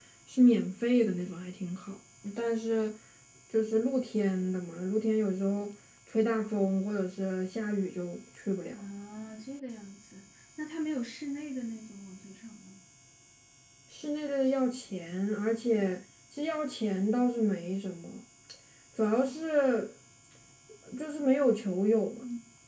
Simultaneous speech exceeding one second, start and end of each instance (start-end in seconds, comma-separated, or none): none